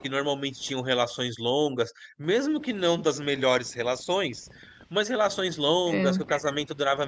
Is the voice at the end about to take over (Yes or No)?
No